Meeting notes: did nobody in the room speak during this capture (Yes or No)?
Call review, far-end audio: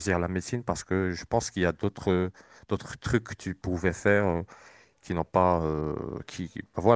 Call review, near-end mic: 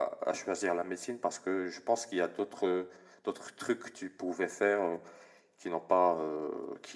Yes